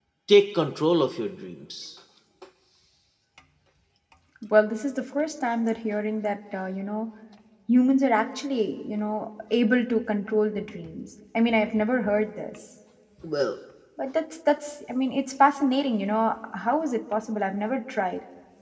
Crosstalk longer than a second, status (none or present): none